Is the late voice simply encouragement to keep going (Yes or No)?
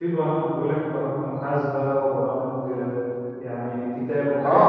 No